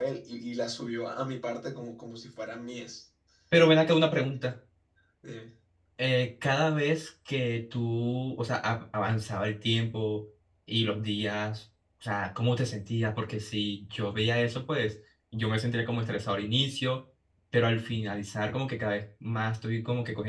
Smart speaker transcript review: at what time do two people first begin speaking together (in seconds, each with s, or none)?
none